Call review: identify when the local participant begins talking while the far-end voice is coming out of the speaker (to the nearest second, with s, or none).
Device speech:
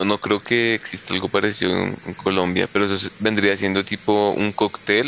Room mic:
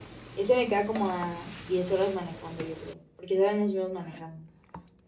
0 s